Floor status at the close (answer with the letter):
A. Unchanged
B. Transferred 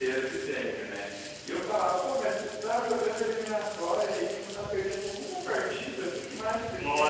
A